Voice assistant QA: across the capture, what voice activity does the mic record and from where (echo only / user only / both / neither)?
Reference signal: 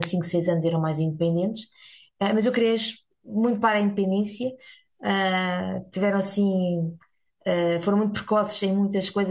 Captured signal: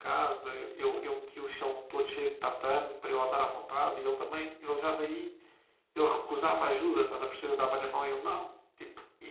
user only